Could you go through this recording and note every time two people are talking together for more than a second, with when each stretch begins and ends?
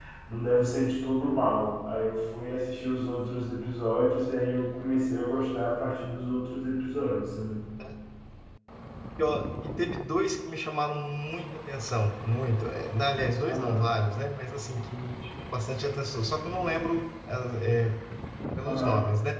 none

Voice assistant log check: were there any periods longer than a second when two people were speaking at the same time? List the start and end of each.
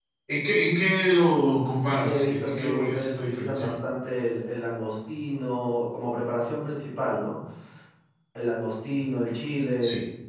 2.0-3.7

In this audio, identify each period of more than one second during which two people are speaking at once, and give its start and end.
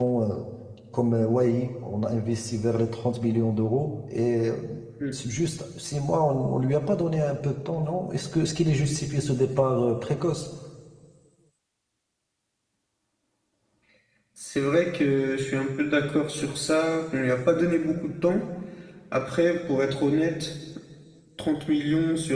none

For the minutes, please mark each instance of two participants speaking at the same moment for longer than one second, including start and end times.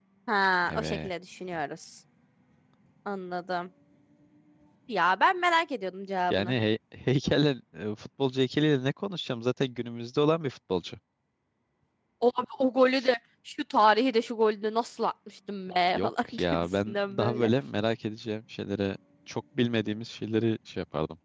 15.9-17.5

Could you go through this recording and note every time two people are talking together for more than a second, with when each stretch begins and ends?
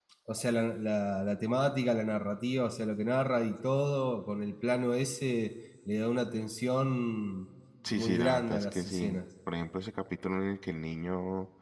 8.0-9.2

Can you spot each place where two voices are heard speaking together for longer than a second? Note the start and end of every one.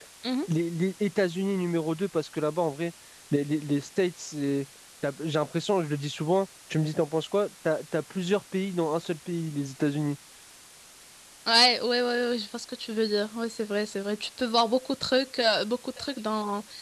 none

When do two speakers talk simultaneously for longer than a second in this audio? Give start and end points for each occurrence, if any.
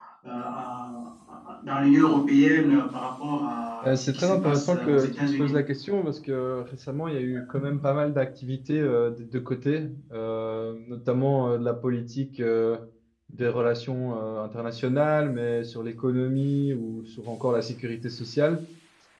3.8-5.5

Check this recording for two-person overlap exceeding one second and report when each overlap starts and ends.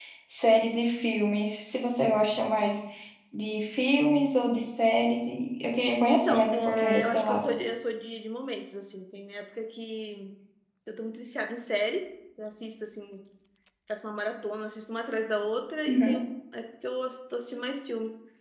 6.2-7.5

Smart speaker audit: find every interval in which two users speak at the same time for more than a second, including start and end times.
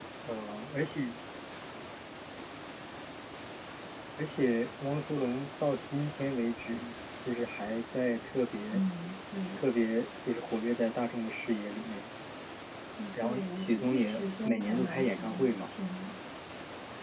13.1-15.6

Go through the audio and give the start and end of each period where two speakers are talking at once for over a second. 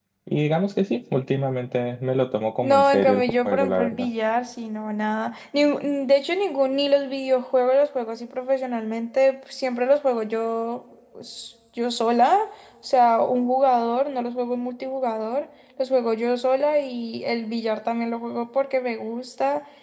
2.6-4.1

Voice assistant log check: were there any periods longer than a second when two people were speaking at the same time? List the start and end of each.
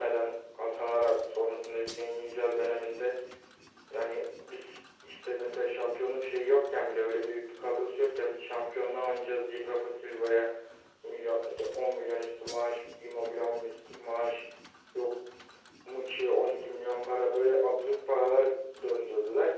none

